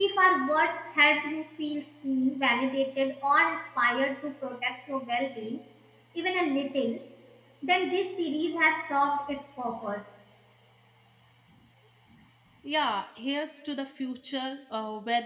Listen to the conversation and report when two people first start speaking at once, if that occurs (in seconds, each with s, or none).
none